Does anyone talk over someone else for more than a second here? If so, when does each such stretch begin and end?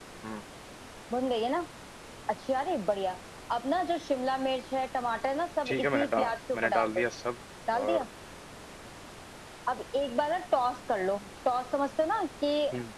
5.7-7.0

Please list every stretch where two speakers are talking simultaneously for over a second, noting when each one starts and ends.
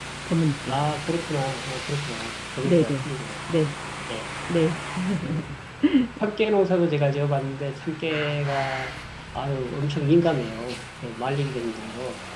none

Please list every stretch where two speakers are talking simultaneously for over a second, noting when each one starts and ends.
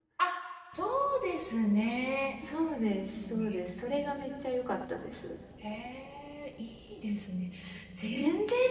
none

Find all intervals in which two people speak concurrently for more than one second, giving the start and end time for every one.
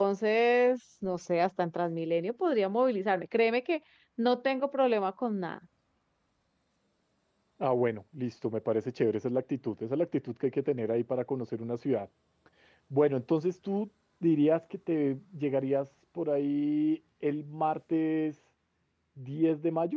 none

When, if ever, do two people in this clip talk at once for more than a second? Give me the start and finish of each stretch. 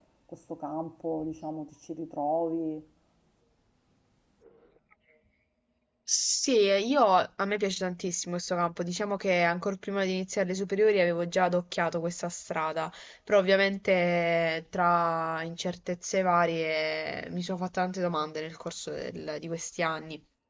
none

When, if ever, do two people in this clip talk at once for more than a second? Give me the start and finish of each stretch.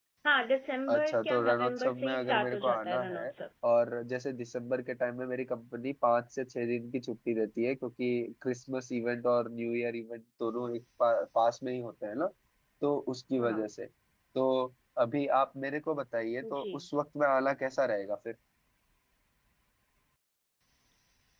0.9-3.3

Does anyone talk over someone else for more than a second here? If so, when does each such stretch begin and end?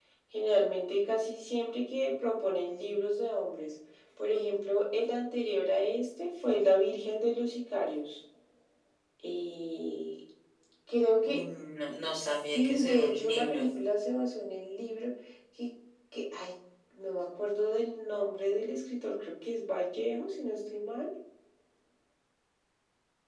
12.2-13.6

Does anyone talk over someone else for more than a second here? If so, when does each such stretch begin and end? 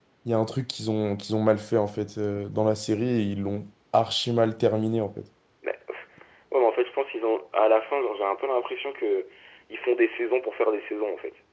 none

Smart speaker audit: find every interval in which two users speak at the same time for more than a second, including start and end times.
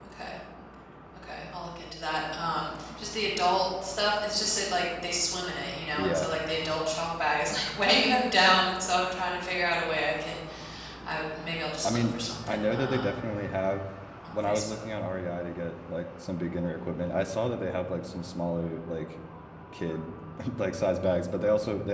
11.8-13.1

